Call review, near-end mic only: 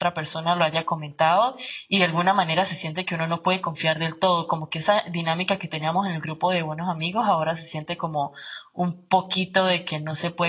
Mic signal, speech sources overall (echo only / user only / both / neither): user only